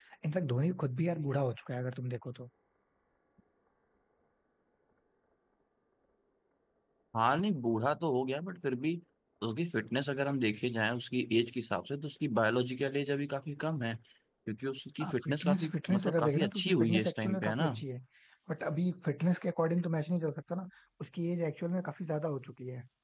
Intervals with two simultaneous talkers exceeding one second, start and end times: 15.2-17.7

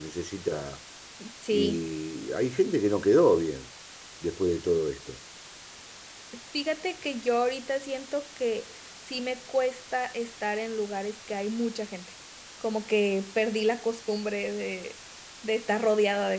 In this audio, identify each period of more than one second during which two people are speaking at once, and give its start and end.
none

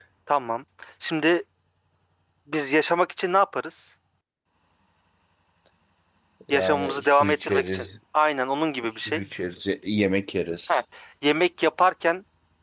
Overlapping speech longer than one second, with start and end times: 6.5-7.9

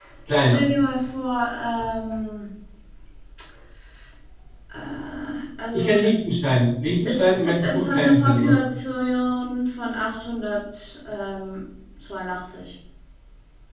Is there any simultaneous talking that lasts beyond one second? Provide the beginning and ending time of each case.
7.0-8.6

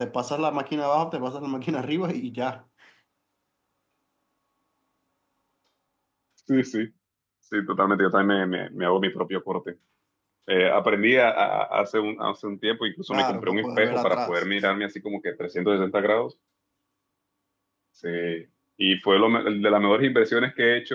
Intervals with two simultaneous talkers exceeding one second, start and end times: 13.1-14.4

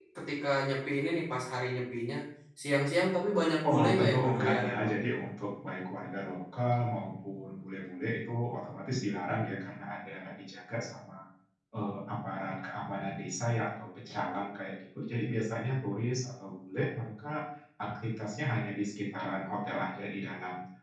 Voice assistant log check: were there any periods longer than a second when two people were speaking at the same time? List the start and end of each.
3.7-5.0

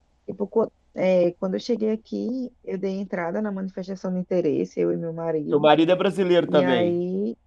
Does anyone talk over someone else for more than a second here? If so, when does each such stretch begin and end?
none

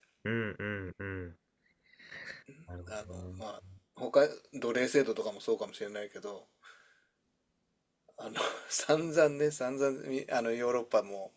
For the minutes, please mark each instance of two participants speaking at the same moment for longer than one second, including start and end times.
none

